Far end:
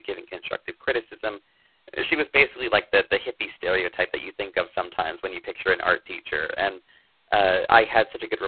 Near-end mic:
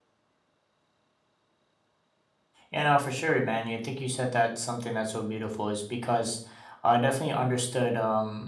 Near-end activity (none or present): present